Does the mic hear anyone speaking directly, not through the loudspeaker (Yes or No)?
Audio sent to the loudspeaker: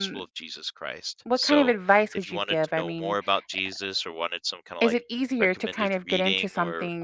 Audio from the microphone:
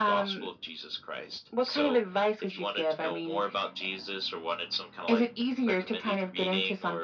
No